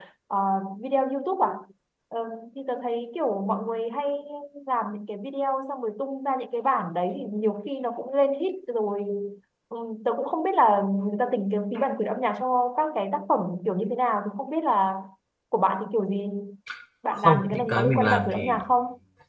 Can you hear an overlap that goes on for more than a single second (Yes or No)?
Yes